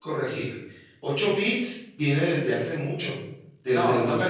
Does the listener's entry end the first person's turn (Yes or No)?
Yes